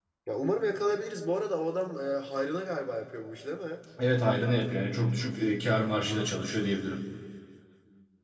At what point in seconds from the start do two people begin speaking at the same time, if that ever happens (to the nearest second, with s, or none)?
none